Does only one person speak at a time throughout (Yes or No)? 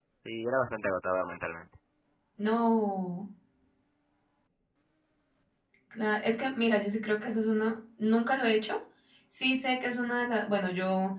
Yes